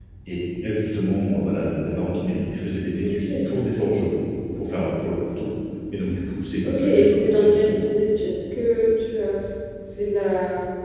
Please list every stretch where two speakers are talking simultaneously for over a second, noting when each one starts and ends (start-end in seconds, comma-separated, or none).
6.6-7.9